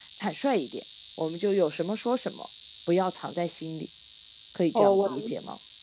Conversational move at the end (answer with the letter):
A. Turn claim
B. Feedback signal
A